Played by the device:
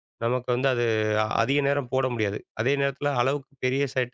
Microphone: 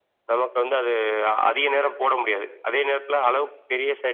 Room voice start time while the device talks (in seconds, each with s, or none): none